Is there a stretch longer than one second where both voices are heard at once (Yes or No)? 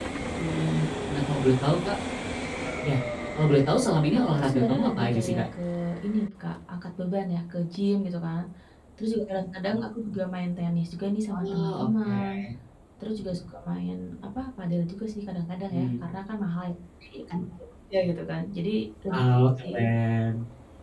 Yes